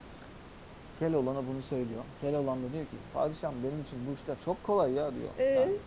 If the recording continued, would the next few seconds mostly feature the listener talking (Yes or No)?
No